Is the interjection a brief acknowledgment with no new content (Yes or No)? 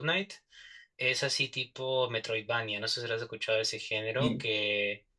Yes